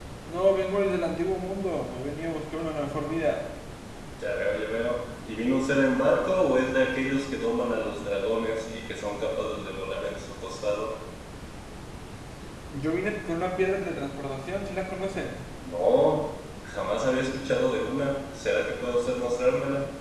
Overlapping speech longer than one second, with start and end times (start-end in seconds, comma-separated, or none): none